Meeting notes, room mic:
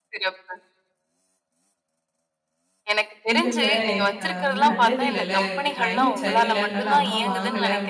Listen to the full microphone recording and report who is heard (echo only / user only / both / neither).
both